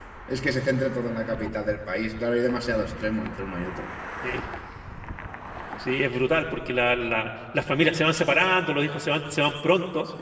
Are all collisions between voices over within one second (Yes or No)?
Yes